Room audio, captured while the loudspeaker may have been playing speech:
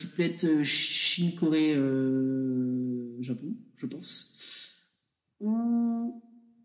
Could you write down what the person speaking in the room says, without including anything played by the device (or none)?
none